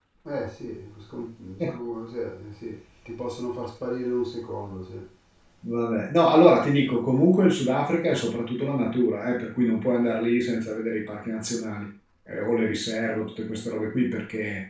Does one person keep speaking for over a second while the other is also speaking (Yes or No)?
No